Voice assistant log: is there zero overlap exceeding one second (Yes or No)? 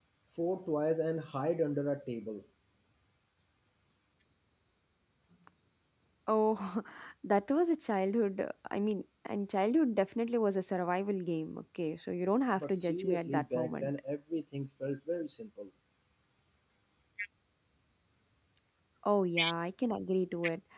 No